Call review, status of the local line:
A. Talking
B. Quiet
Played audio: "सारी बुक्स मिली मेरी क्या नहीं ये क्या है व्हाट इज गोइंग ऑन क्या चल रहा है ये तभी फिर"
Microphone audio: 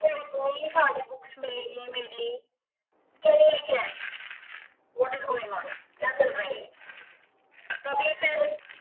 B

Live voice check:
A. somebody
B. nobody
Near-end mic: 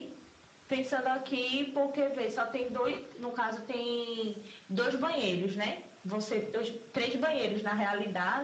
B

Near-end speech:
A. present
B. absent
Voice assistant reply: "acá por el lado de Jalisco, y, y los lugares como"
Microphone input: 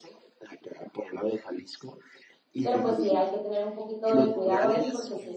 A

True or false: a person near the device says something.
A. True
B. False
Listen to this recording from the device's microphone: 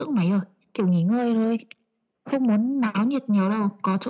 B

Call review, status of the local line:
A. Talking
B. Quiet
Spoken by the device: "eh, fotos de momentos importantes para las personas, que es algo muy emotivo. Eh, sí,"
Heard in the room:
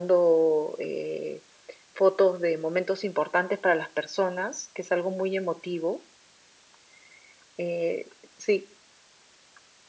B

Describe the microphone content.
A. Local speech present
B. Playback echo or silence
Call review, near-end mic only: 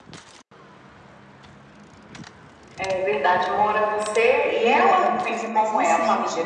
A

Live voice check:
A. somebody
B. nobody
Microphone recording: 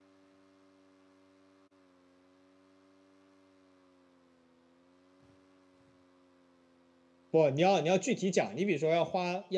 A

